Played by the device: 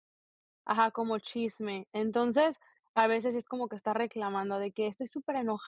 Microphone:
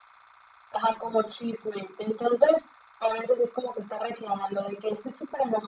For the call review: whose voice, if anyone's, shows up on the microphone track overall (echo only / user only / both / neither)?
echo only